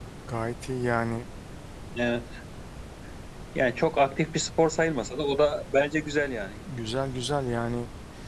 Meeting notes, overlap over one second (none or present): none